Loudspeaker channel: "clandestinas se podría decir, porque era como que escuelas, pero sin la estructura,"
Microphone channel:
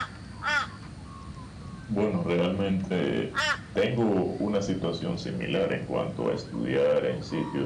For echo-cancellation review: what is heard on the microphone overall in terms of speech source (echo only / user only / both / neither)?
user only